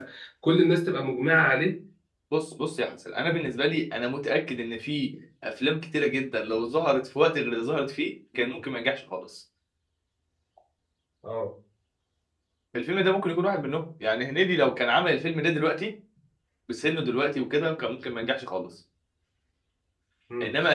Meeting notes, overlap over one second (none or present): none